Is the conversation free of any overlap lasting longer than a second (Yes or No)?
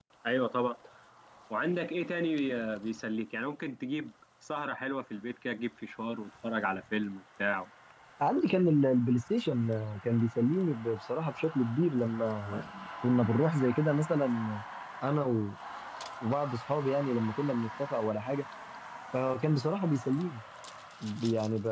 Yes